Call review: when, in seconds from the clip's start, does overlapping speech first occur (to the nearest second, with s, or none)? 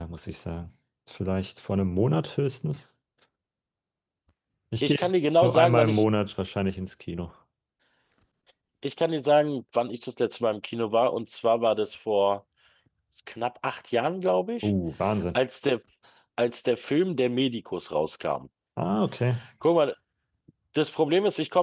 5 s